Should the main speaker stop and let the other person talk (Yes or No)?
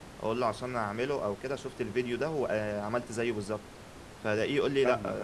No